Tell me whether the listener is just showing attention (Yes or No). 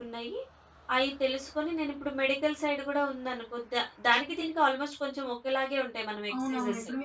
No